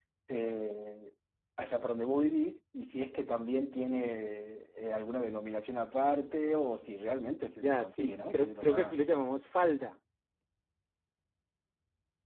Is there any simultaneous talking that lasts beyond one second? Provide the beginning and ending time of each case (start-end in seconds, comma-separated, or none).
7.6-8.9